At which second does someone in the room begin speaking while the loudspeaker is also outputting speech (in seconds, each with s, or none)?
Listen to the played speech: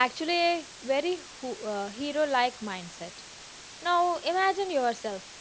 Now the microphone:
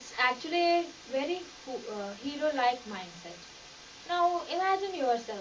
none